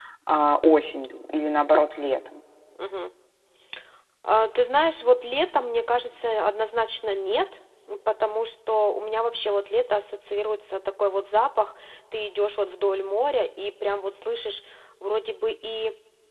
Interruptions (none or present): none